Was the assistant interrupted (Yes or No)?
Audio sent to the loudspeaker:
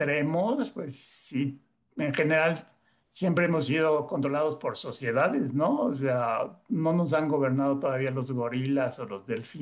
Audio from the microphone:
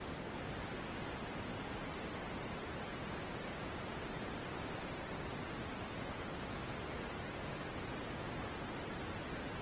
No